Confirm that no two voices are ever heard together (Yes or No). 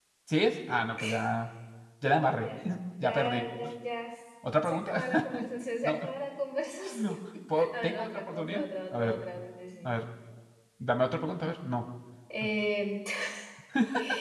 No